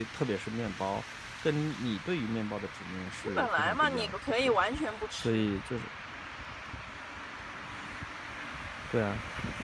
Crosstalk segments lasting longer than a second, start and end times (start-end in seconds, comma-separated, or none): 3.2-4.5